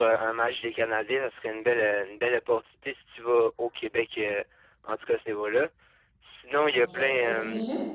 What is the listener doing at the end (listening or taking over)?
taking over